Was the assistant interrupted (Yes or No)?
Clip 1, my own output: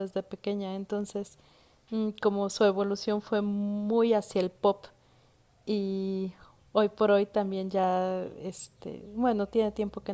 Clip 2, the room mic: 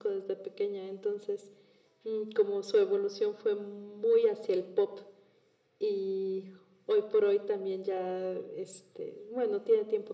No